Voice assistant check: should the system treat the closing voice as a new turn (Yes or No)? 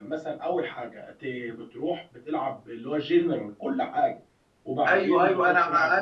Yes